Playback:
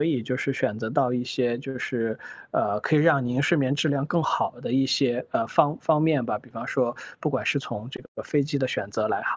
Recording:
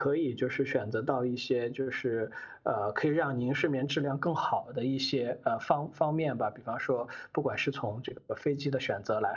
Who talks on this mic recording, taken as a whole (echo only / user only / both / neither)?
echo only